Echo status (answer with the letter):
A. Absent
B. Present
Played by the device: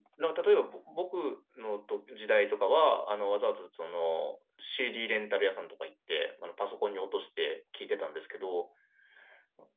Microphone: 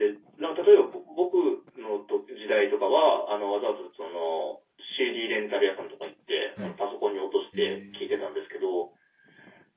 B